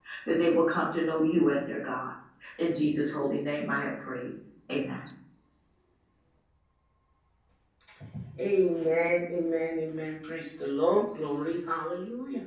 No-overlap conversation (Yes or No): Yes